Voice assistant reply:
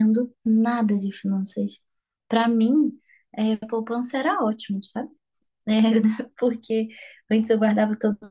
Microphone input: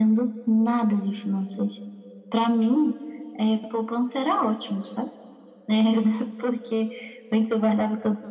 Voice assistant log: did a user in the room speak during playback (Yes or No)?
No